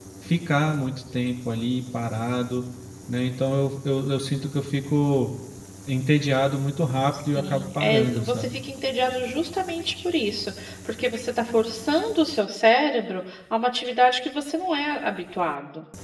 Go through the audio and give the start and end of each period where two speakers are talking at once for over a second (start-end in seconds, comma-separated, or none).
7.2-8.6